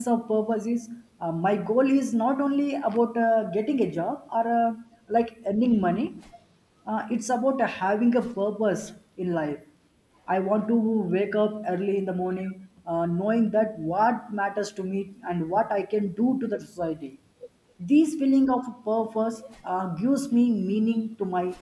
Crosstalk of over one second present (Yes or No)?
No